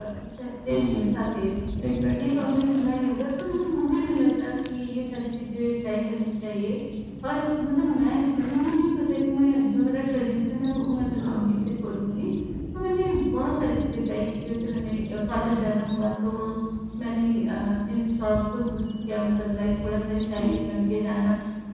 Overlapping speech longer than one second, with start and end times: none

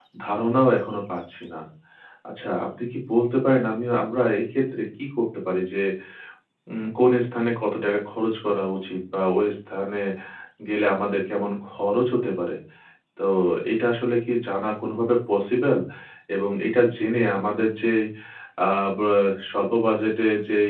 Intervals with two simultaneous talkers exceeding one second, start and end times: none

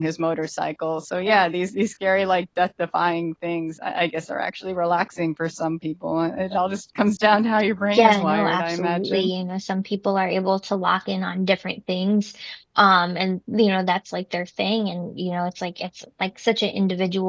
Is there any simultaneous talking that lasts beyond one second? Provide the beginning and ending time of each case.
7.9-9.3

